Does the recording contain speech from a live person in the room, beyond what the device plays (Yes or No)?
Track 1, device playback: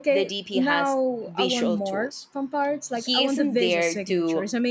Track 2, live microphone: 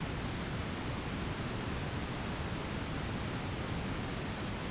No